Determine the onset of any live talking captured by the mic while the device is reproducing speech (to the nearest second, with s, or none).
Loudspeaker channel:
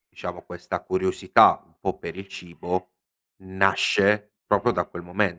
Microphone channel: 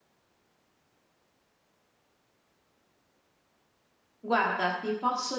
4 s